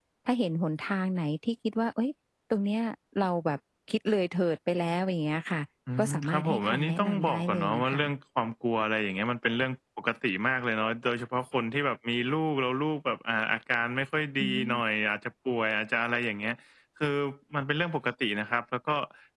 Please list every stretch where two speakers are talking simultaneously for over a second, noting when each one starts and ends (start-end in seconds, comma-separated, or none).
6.0-8.0